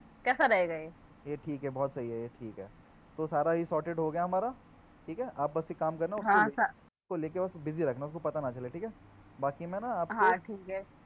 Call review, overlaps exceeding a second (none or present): none